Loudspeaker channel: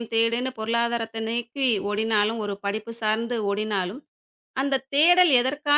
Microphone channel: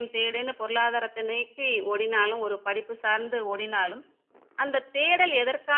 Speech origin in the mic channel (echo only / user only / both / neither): echo only